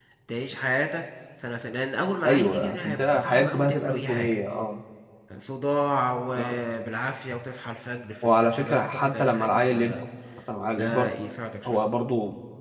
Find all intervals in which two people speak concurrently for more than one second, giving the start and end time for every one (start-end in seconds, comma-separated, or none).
2.2-4.3, 8.2-9.7